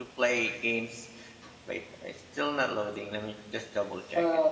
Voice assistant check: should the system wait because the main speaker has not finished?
No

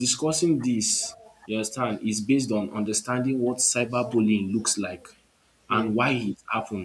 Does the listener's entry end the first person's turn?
No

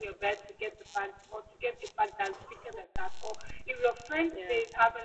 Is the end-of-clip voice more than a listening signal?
No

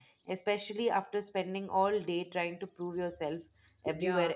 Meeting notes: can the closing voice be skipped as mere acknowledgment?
No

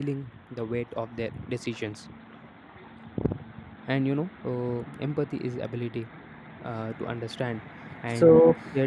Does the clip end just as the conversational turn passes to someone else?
No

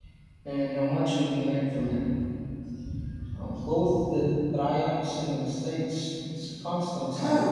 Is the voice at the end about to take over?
Yes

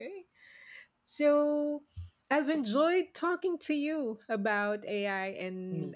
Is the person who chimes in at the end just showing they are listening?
Yes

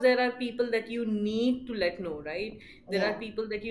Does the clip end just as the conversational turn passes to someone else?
No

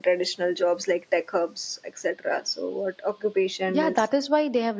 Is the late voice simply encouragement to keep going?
No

